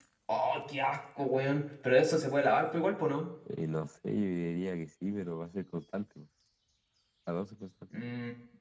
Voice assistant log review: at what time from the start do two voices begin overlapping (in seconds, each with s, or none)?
none